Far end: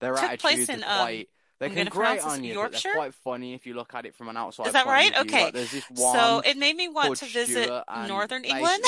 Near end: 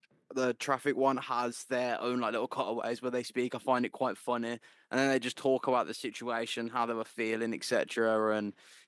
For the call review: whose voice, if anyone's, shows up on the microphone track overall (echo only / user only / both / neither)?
user only